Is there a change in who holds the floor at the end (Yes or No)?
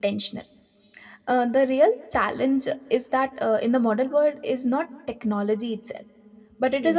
No